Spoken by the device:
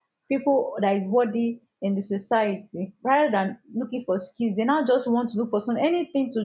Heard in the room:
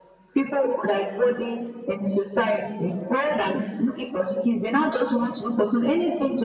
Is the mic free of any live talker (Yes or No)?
Yes